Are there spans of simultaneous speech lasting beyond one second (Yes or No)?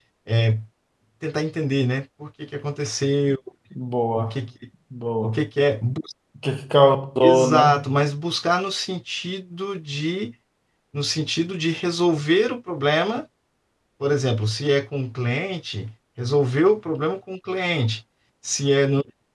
No